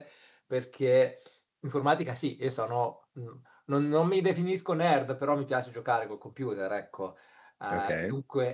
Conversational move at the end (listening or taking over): listening